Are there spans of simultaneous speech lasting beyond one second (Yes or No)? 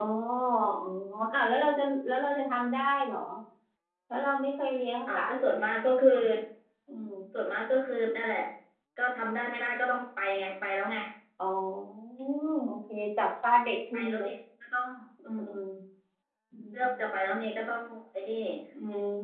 No